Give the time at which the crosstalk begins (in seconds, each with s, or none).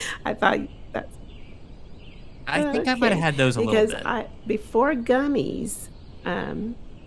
2.5 s